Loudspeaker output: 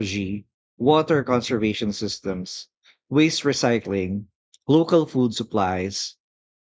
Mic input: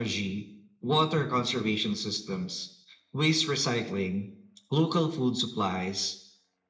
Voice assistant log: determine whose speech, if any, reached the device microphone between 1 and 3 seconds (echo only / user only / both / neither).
echo only